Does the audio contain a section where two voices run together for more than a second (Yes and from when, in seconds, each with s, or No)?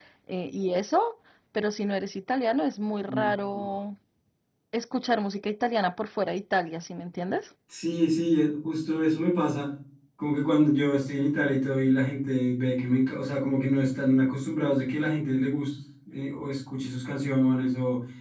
No